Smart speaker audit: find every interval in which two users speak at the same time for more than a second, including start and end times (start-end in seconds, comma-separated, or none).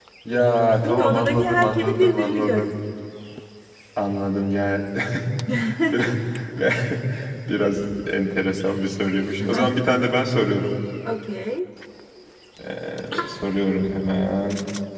0.8-2.7